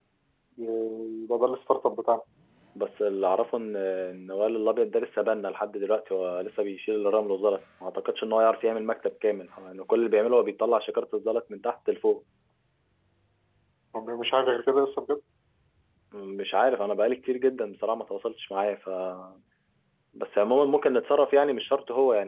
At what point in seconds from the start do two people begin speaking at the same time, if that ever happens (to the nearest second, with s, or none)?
none